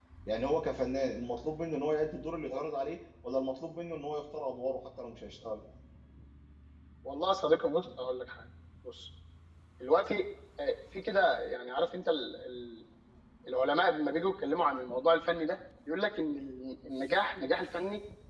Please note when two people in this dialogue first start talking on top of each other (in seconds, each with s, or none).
none